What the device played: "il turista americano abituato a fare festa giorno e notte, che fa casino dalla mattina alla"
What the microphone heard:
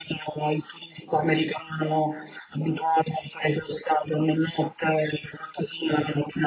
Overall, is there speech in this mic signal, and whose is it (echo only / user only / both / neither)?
echo only